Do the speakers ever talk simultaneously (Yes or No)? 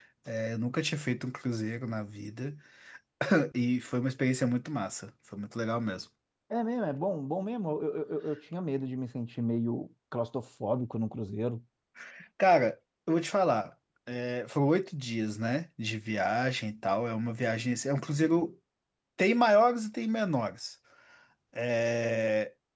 No